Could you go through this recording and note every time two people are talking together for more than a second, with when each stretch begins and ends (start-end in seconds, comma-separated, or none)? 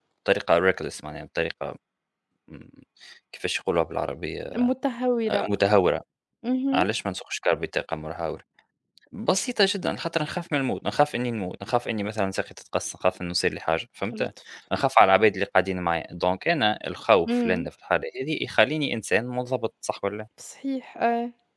none